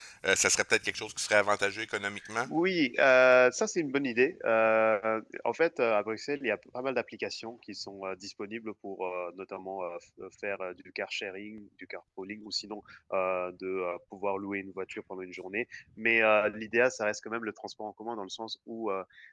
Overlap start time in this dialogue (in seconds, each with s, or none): none